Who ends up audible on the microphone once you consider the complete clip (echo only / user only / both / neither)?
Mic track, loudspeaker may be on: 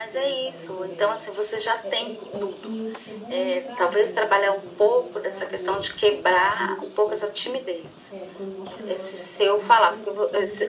both